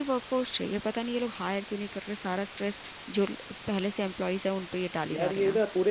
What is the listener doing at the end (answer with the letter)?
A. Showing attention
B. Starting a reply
B